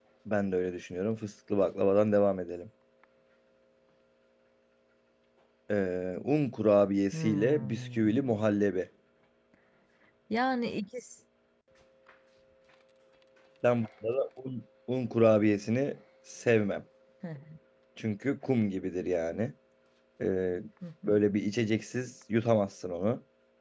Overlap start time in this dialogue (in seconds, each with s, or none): 7.1 s